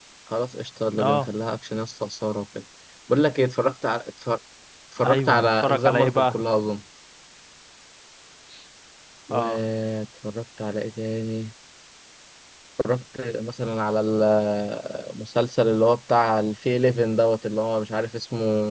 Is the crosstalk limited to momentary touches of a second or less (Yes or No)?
No